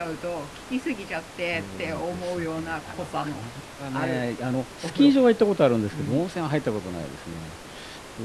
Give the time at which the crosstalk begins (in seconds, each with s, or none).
1.5 s